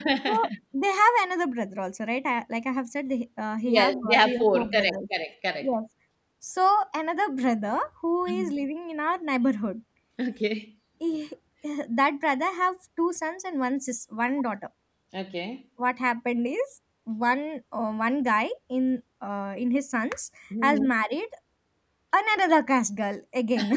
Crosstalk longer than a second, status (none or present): present